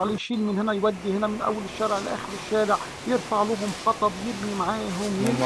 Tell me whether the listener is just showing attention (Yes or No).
No